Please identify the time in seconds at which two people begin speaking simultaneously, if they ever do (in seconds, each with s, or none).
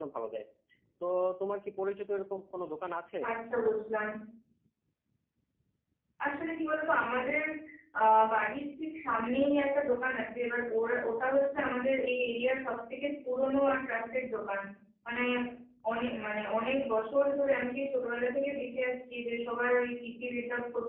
none